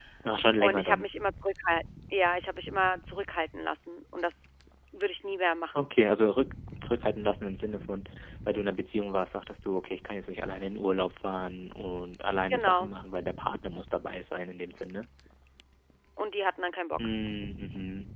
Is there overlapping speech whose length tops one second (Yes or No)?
No